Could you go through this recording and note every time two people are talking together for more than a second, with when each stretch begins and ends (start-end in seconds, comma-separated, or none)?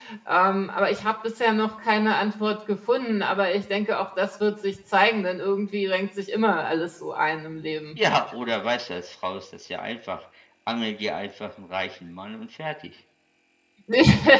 none